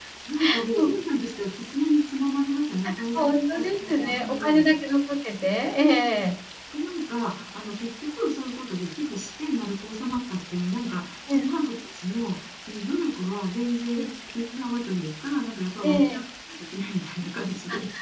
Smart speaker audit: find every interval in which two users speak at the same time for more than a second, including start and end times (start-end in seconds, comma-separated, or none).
3.1-4.7